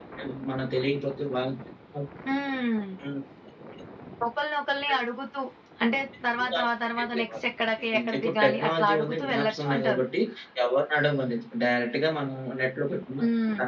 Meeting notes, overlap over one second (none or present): present